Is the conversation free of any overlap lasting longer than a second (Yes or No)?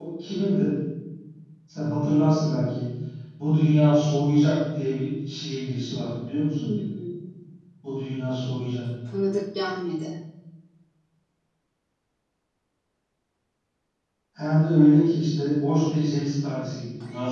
Yes